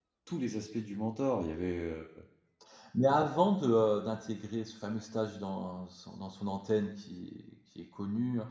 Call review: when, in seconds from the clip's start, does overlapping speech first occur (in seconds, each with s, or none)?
none